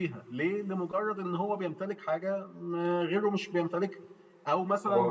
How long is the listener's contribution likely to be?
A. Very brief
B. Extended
A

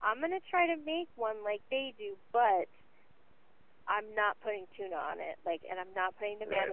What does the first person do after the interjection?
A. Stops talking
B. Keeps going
A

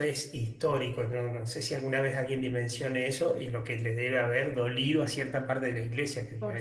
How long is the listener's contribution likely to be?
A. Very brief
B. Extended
B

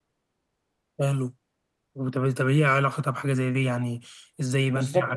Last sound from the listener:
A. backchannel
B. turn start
B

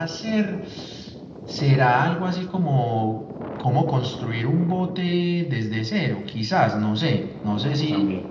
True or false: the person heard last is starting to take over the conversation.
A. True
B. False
B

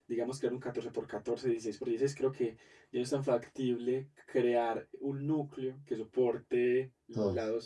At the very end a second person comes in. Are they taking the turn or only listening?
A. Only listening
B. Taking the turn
A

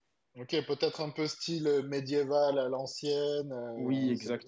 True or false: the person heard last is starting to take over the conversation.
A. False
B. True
B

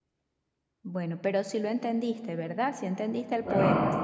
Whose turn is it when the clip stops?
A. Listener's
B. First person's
A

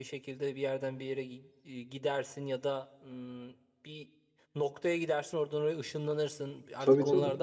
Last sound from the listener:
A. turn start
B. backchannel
B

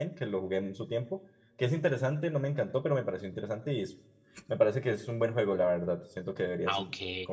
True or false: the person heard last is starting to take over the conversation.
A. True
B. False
A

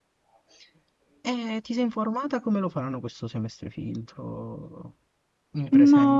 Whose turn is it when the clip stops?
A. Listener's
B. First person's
A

